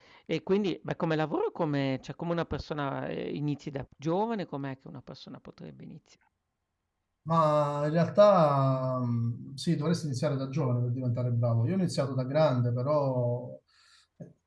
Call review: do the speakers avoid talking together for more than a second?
Yes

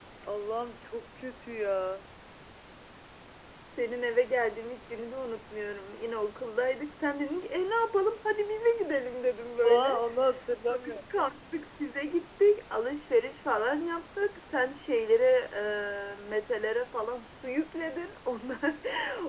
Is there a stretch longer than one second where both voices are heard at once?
No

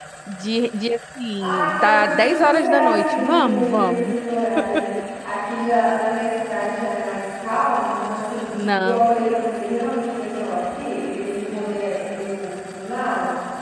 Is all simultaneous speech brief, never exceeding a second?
No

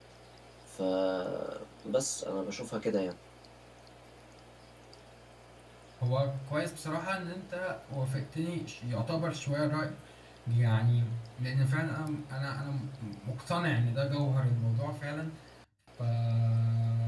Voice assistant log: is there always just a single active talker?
Yes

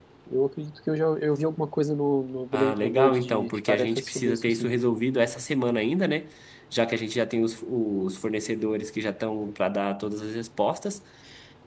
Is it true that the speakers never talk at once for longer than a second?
No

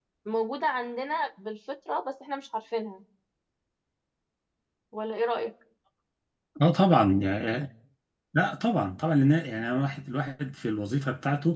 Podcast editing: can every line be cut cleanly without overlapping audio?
Yes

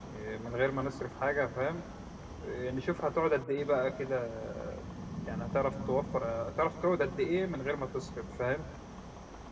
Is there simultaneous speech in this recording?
No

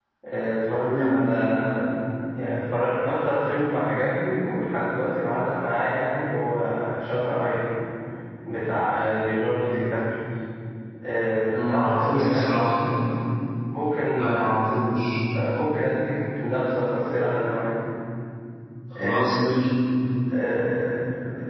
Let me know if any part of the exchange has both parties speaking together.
Yes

